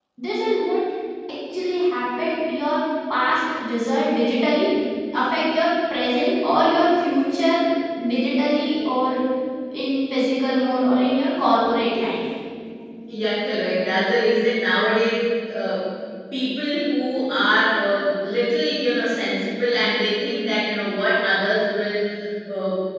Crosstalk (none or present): none